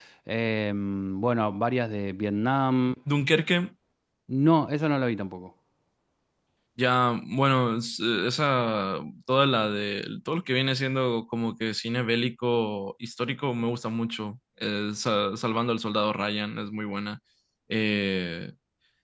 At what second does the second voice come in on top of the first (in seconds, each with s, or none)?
none